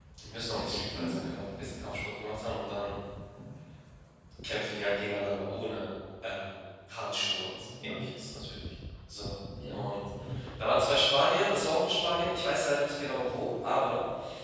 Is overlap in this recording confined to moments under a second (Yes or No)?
Yes